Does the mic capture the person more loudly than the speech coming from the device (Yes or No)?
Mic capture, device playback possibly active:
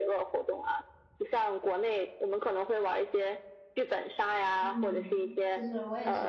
No